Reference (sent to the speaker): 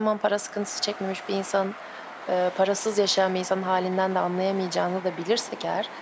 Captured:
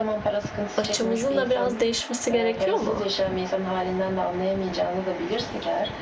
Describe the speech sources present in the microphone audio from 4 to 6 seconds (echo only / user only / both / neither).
echo only